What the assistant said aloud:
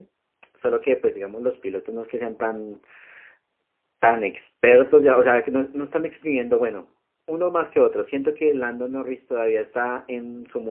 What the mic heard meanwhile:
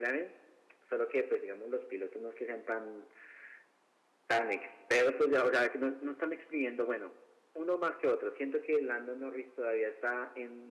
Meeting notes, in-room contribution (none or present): none